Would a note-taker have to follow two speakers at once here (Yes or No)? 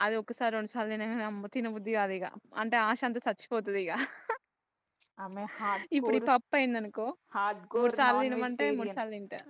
Yes